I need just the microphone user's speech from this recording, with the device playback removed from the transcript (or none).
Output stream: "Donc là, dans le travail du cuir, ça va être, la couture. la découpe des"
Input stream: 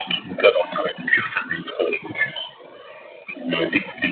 none